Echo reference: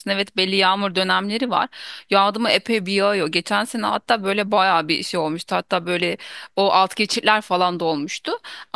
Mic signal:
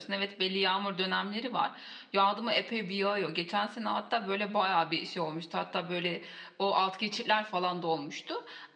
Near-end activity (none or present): none